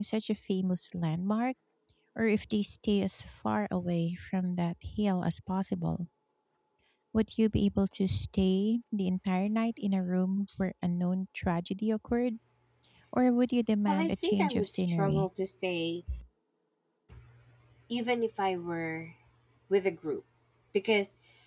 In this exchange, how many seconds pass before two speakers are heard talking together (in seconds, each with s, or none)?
13.9 s